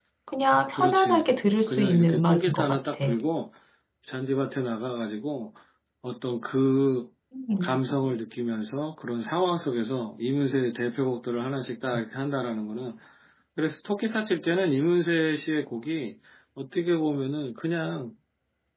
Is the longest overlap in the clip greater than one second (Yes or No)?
Yes